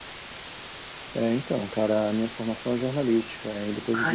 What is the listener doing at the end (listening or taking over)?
listening